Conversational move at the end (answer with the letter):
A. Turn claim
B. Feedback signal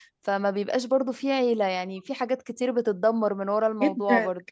A